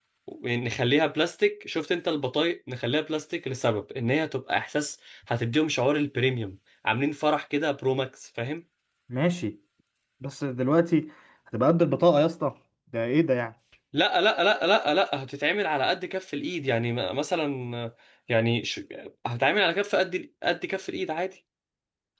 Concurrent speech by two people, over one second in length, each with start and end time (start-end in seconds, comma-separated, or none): none